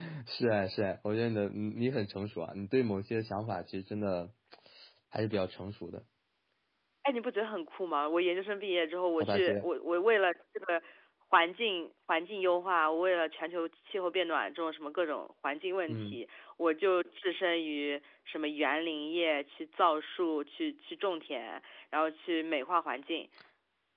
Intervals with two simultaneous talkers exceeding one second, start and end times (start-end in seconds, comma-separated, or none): none